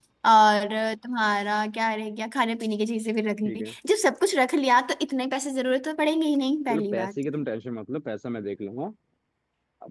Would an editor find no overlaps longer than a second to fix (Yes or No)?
Yes